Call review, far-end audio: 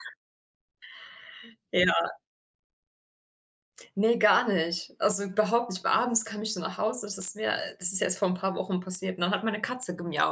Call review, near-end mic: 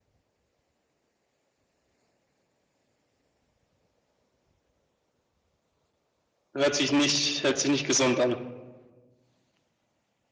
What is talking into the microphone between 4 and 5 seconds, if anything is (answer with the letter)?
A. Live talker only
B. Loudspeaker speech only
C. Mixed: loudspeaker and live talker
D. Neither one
D